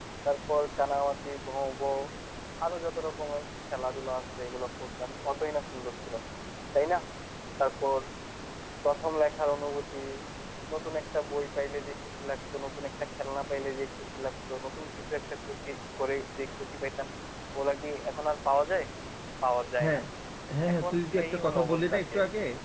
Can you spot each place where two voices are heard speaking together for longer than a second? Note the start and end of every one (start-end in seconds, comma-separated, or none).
20.7-22.1